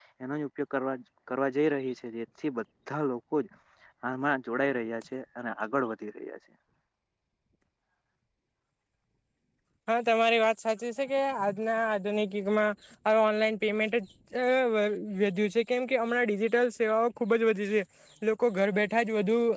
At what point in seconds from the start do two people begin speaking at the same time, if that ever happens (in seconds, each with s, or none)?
none